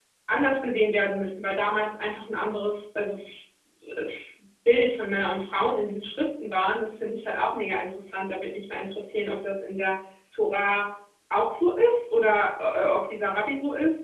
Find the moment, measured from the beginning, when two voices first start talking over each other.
none

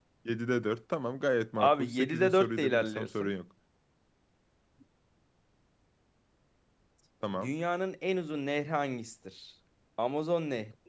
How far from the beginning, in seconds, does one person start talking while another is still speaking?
1.6 s

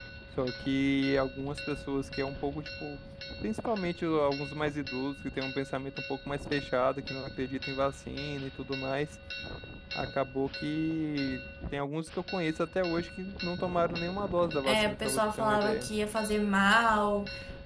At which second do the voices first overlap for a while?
14.6 s

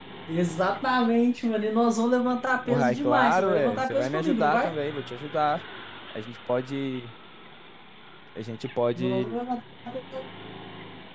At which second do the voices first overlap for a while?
2.6 s

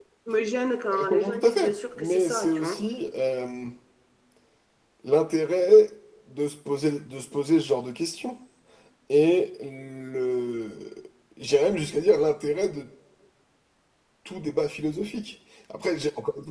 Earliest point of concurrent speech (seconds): 0.9 s

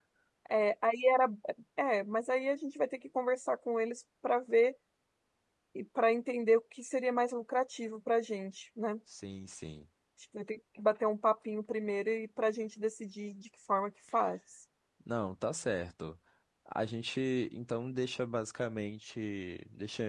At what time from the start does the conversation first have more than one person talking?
none

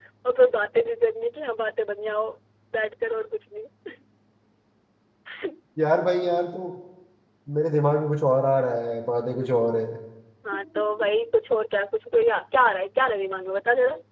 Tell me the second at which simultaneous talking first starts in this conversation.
none

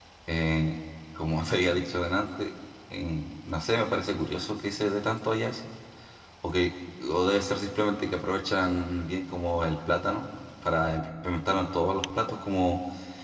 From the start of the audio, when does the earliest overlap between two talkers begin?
none

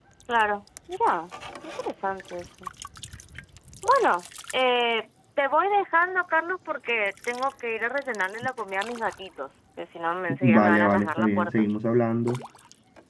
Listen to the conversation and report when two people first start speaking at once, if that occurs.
10.3 s

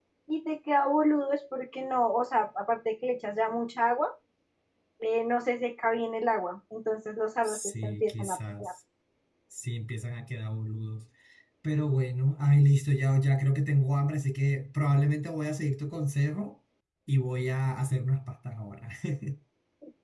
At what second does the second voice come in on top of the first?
7.4 s

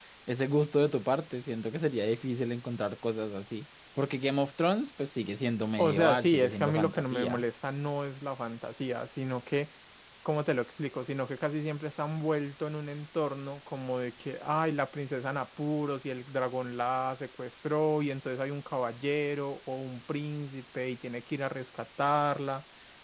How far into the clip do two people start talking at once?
5.8 s

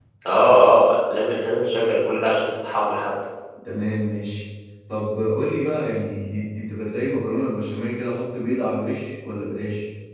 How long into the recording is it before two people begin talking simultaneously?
none

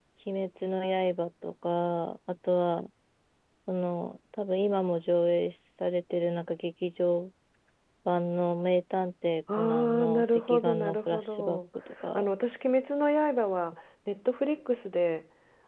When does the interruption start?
9.6 s

